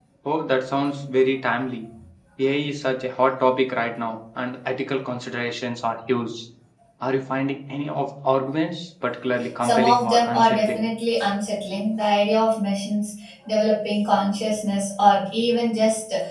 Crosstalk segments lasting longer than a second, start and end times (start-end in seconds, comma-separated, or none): 9.6-10.9